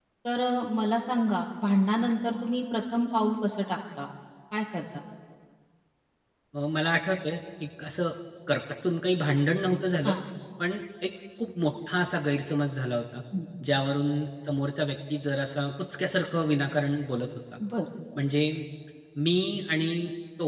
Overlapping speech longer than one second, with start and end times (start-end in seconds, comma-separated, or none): none